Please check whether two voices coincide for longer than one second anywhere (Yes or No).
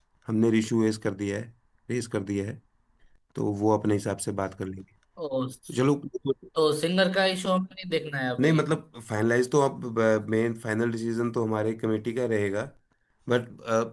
No